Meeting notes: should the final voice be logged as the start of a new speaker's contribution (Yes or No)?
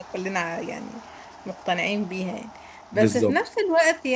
No